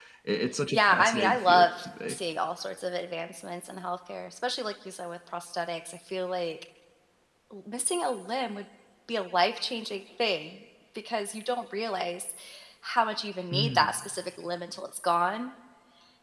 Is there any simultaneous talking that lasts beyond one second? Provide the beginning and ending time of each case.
0.7-2.2

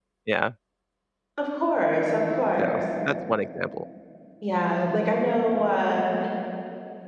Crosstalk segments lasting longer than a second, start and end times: none

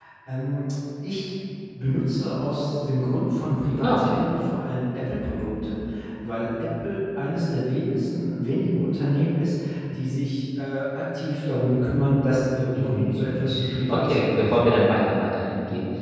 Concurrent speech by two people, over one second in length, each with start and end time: 12.7-14.8

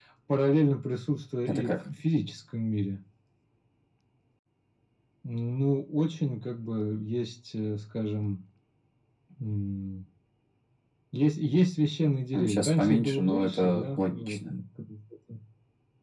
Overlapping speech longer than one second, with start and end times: 12.3-14.5

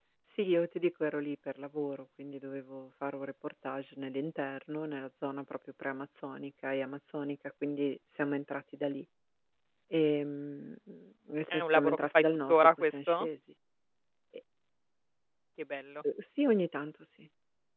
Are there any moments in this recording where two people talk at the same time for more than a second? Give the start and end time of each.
11.5-13.3

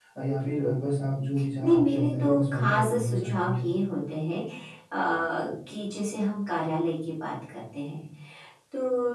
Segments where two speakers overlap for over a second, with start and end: 1.6-3.7

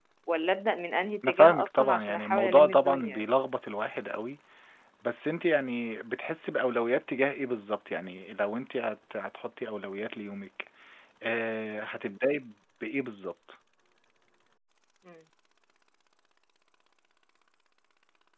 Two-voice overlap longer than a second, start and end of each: 1.2-3.2

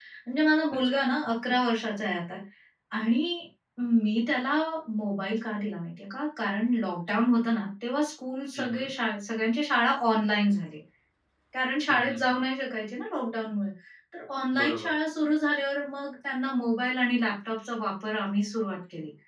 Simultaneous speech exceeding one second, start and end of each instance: none

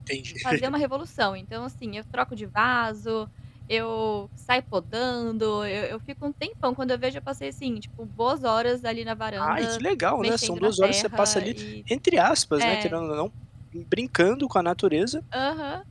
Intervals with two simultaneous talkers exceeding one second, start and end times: 10.2-11.5

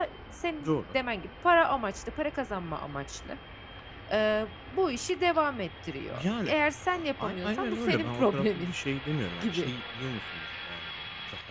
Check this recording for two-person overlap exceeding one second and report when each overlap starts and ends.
6.9-8.7

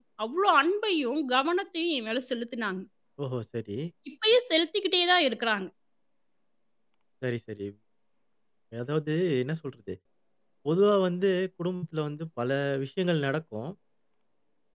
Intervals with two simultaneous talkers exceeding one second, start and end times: none

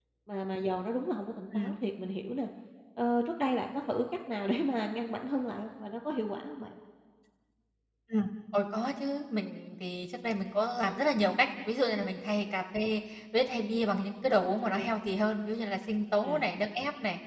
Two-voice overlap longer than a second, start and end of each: none

